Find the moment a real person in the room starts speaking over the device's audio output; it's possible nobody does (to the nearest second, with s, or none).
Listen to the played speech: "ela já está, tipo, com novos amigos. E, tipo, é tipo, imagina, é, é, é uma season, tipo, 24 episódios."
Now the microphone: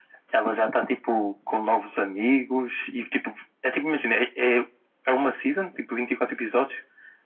none